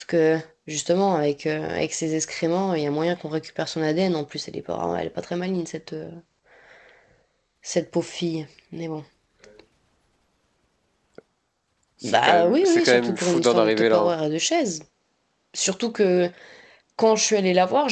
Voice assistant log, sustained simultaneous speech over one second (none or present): present